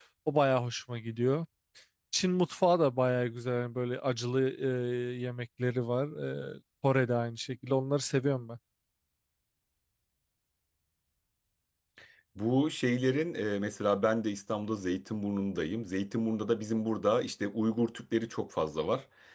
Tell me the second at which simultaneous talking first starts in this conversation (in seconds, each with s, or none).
none